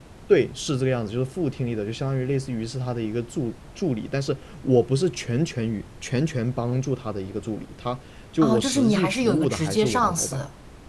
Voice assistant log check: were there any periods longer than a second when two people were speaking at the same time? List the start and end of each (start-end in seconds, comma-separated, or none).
8.4-10.4